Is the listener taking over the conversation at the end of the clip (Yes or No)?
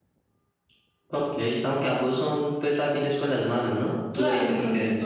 Yes